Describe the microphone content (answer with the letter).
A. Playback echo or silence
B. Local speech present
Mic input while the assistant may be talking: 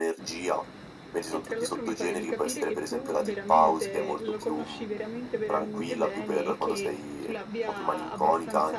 B